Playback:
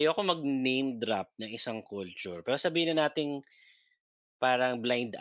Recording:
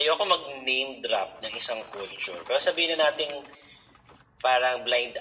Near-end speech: none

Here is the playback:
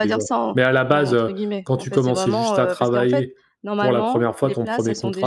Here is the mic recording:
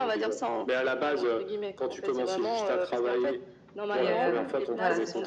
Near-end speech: present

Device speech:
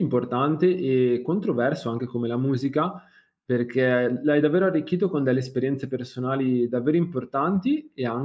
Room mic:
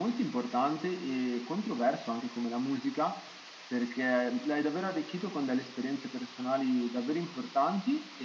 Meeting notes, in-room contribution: none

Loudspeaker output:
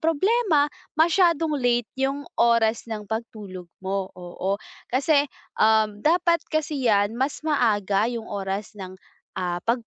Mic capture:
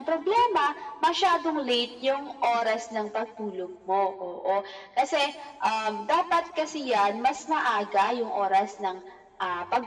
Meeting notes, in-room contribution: none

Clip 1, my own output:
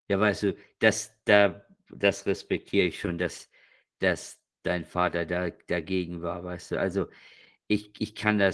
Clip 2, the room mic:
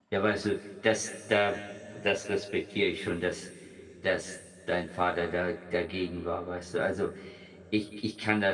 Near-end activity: none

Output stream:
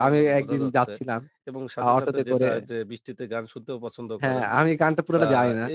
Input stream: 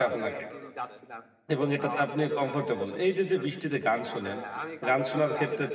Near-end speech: present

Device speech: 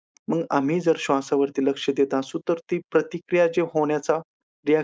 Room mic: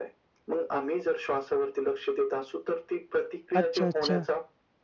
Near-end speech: present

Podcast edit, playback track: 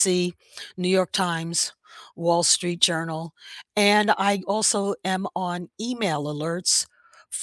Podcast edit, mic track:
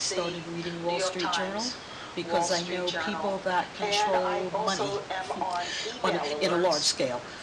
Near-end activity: present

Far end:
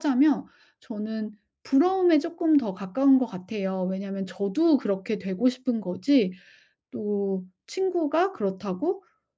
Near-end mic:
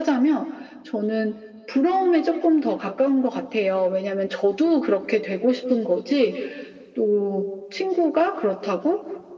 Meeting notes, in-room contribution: none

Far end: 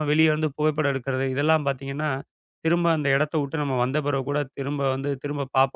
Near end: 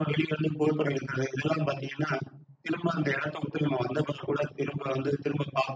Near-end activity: none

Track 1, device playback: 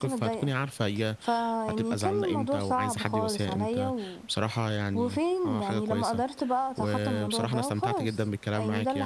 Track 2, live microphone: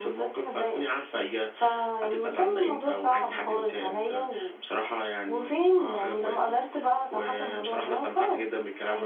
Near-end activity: none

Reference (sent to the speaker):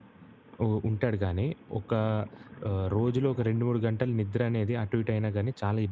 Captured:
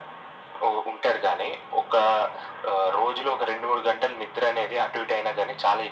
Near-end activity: none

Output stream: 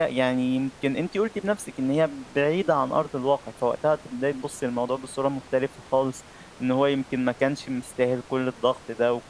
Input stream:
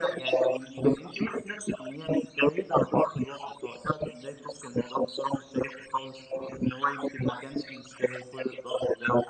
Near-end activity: none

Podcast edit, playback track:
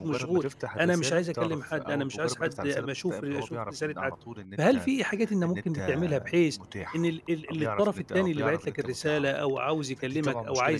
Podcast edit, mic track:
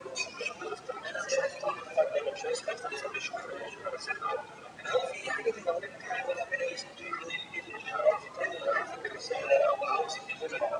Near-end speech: none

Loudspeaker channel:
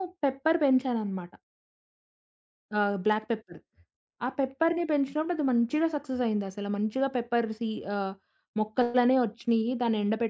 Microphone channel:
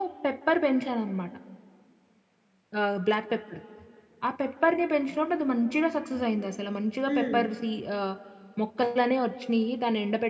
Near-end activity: present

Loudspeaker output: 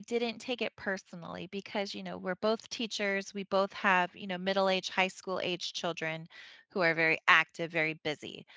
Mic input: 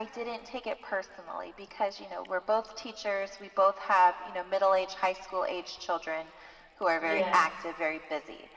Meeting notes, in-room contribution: present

